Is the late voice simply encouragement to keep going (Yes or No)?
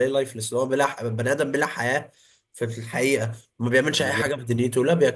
Yes